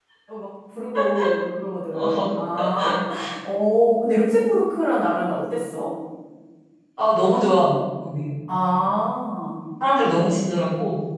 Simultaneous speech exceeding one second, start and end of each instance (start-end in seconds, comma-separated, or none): none